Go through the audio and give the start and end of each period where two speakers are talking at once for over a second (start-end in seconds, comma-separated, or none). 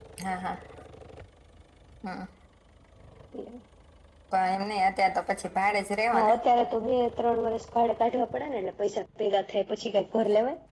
none